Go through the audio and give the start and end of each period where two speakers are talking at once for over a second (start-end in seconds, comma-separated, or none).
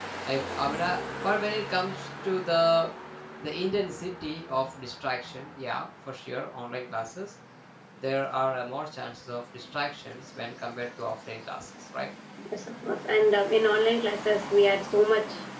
none